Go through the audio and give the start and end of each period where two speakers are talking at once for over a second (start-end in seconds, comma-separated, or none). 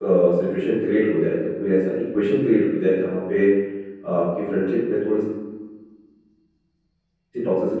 none